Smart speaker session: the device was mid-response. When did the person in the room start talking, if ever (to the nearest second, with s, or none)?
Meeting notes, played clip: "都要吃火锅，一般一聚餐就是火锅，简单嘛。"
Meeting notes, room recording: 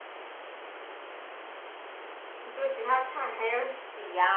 2 s